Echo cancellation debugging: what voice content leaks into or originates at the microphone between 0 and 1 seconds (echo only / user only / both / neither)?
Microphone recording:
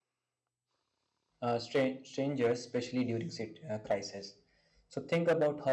neither